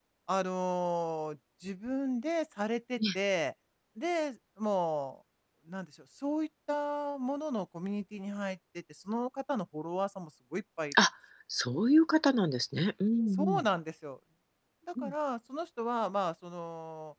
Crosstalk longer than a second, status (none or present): none